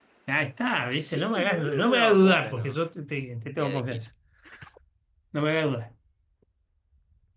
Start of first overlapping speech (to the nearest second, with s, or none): 1 s